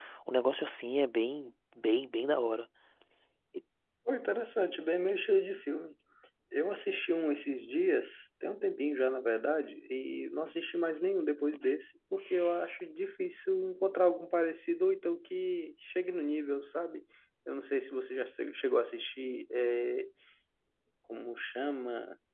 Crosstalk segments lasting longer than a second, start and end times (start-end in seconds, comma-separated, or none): none